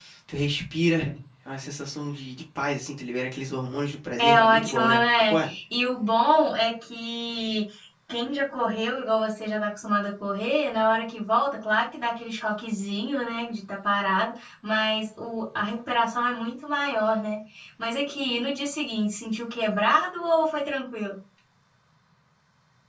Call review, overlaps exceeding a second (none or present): present